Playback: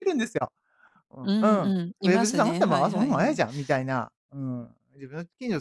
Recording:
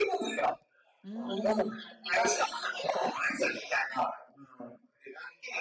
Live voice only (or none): うーん。